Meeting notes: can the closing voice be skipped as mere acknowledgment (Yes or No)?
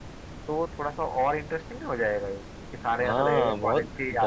No